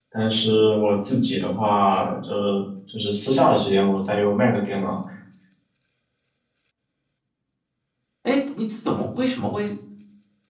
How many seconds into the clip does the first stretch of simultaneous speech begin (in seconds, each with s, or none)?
none